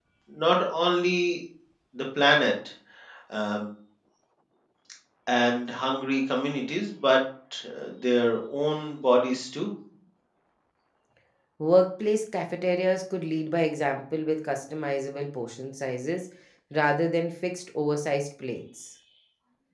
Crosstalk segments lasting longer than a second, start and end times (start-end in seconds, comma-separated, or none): none